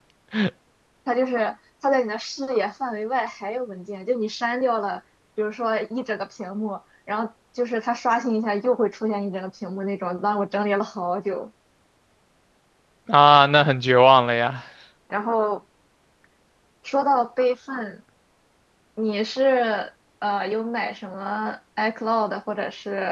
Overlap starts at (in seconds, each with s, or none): none